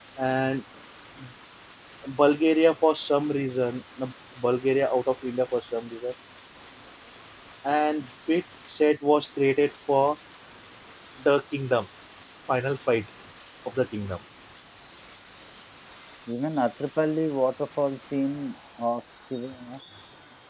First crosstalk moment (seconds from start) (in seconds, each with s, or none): none